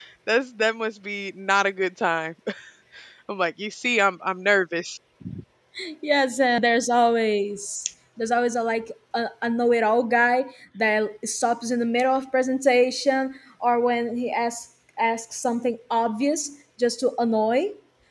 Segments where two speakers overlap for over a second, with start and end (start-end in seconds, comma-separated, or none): none